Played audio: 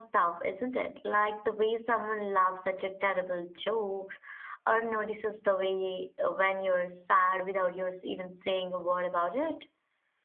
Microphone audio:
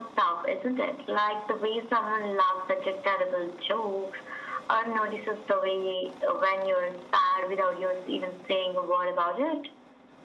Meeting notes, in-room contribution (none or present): none